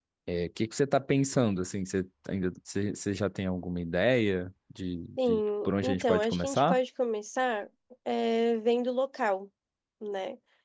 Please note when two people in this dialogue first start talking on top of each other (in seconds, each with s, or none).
5.2 s